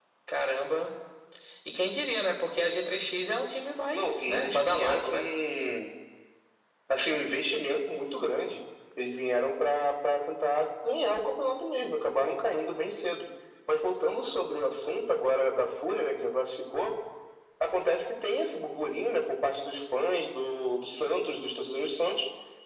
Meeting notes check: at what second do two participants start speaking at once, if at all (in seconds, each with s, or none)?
3.9 s